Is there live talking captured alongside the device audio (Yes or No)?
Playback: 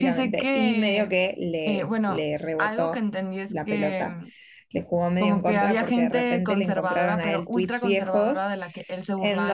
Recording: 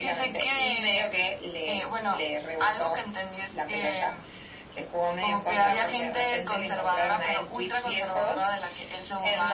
No